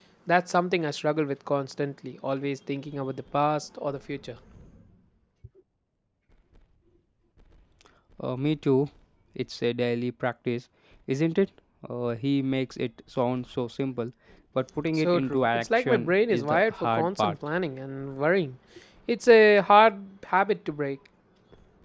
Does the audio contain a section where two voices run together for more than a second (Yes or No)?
Yes